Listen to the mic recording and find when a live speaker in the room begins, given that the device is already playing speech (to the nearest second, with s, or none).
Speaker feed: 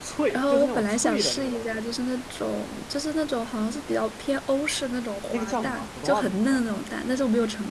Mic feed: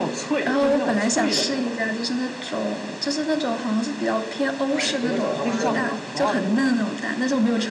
5 s